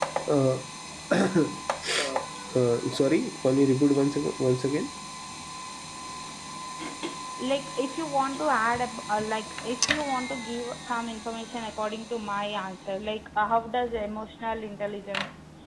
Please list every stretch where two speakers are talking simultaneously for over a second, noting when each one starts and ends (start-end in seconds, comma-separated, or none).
none